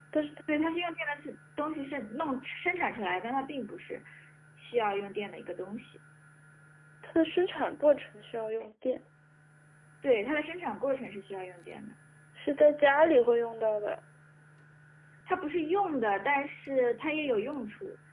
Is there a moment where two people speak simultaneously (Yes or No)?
No